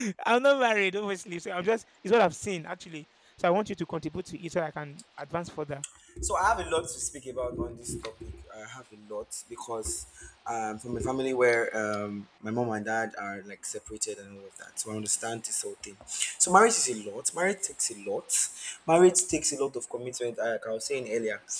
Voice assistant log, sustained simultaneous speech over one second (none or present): none